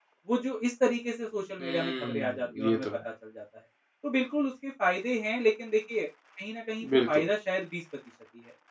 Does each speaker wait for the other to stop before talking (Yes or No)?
No